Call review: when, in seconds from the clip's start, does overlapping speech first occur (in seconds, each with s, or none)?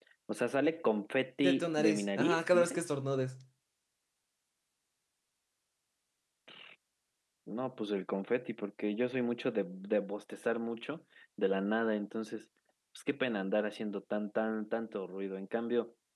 1.4 s